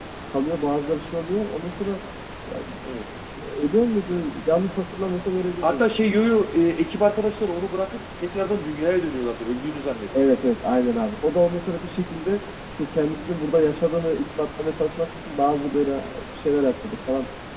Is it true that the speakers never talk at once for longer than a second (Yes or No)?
Yes